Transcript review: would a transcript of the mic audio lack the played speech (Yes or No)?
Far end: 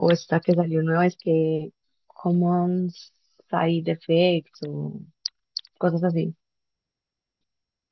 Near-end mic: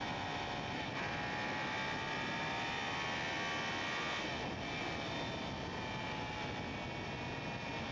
Yes